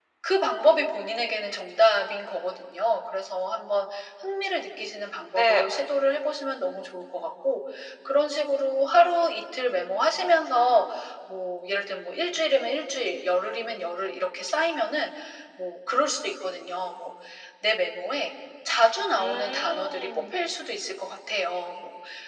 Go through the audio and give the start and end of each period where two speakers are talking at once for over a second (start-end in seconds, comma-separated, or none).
19.2-20.4